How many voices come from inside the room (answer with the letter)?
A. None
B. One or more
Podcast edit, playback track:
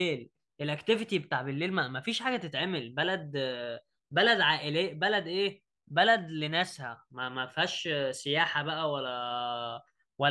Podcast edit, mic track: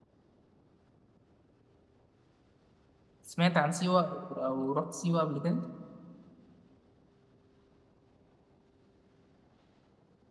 B